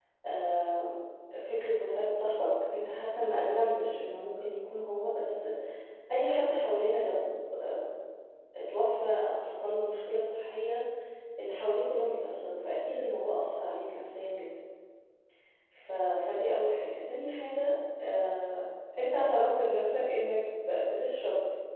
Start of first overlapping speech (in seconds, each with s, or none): none